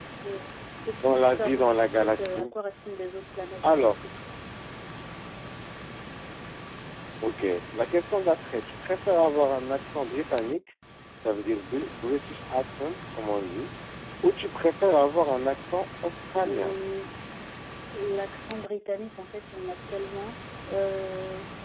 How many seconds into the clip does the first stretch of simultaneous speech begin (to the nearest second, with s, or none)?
1 s